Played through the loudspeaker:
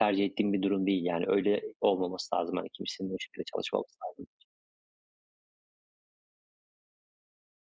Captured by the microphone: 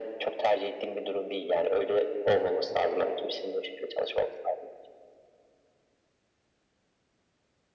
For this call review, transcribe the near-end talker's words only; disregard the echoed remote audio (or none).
none